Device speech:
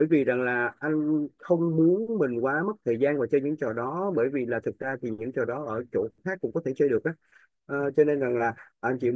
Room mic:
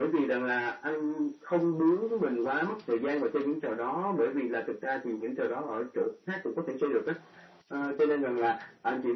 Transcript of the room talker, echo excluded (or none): none